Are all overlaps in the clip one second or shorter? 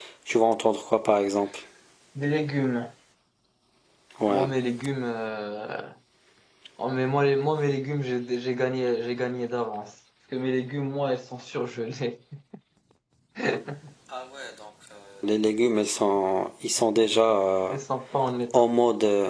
Yes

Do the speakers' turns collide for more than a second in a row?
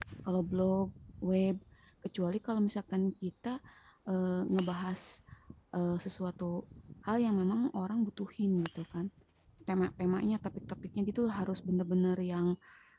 No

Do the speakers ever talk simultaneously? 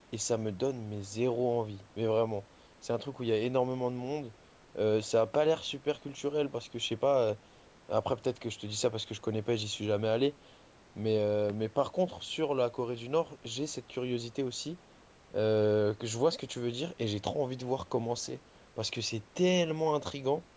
No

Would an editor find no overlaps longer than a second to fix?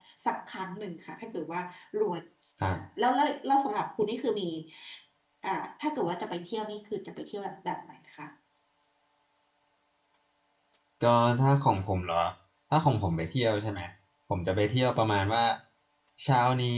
Yes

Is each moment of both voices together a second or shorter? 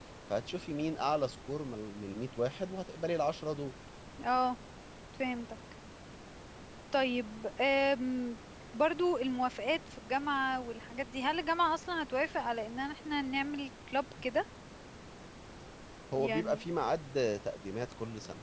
Yes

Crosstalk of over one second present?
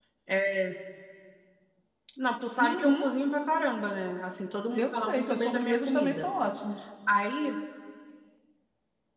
Yes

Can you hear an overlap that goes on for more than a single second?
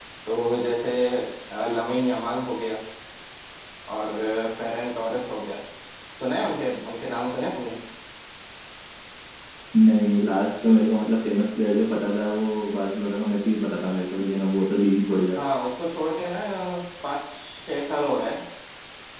No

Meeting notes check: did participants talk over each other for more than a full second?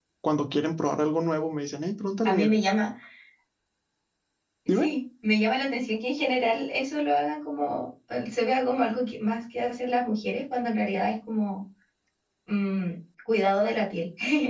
No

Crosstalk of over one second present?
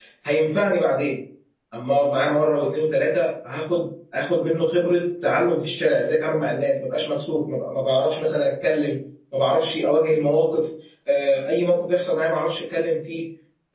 No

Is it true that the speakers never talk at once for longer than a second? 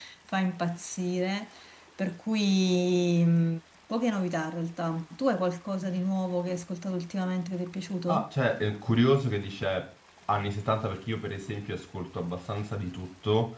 Yes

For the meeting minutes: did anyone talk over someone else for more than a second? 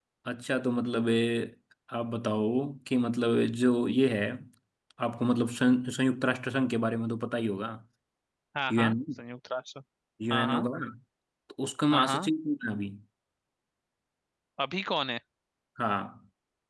No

